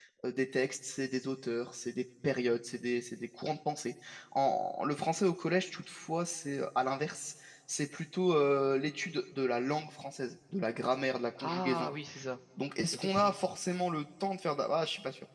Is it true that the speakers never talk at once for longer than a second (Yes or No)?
Yes